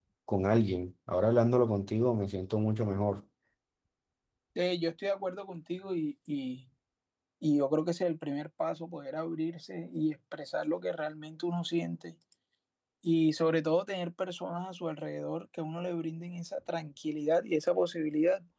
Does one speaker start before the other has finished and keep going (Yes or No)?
No